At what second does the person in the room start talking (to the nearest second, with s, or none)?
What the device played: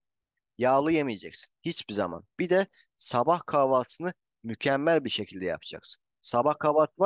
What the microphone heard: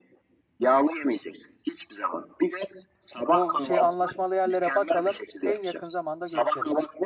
3 s